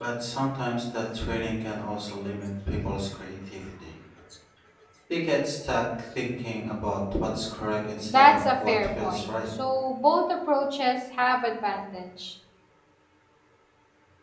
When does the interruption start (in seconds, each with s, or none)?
8.0 s